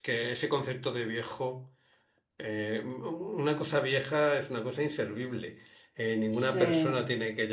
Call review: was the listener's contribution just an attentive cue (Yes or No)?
Yes